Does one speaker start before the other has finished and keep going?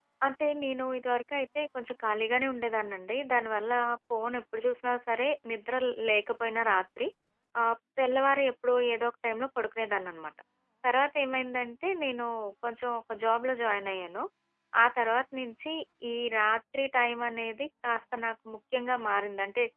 No

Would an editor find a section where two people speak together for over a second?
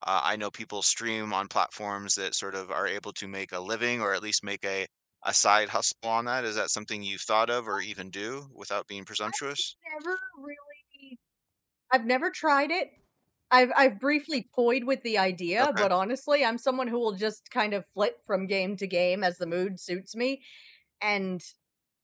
No

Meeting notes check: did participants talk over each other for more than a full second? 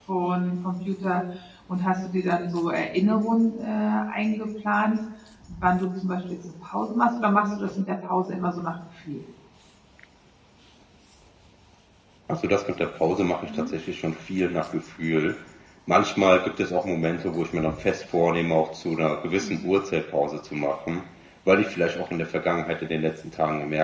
No

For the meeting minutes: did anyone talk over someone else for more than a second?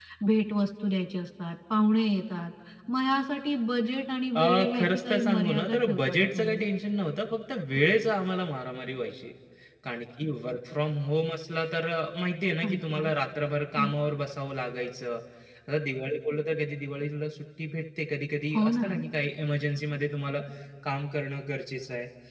Yes, from 4.4 s

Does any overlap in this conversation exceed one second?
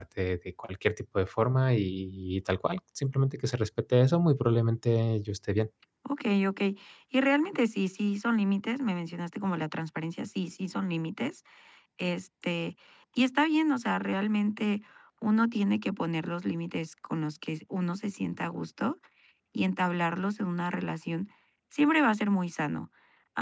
No

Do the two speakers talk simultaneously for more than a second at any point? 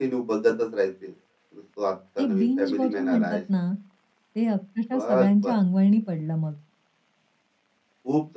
Yes, from 2.2 s

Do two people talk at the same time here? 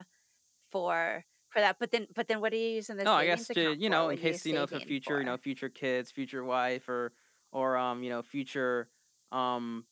Yes, from 3.0 s

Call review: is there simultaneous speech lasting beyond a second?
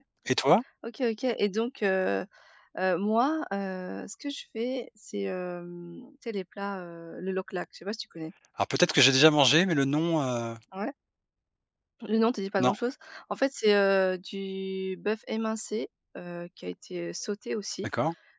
No

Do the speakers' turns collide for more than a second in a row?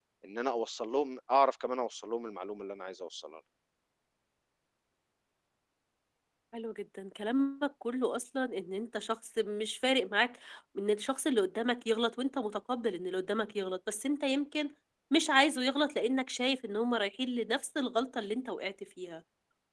No

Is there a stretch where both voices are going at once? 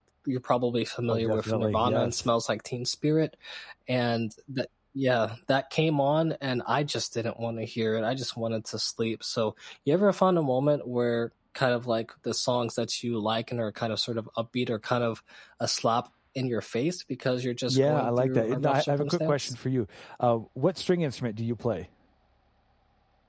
Yes, from 1.1 s

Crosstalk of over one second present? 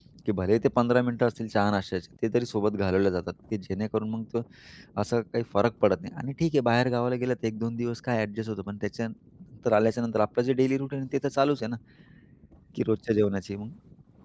No

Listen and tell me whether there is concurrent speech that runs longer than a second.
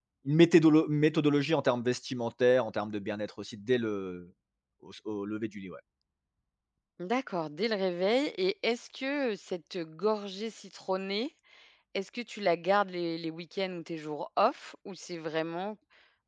No

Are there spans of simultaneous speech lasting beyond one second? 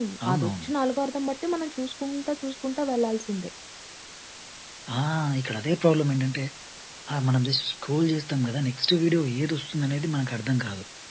No

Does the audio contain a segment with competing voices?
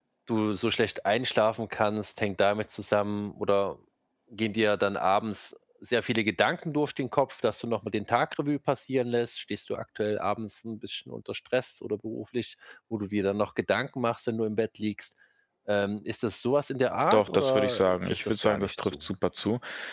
Yes, from 17.1 s

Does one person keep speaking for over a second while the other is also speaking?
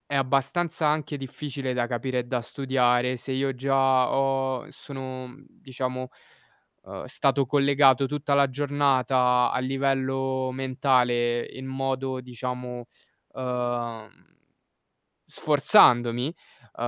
No

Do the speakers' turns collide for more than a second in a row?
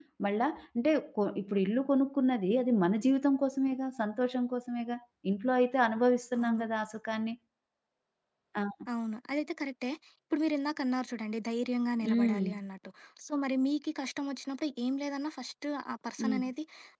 No

